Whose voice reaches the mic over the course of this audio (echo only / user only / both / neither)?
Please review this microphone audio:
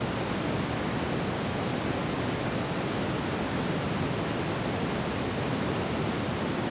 neither